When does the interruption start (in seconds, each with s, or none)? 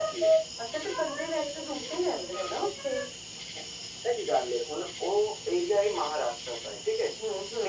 none